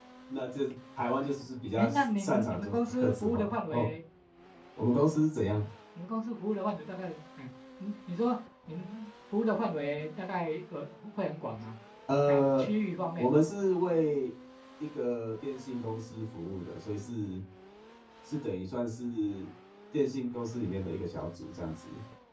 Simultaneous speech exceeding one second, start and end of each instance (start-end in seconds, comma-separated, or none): 1.8-3.9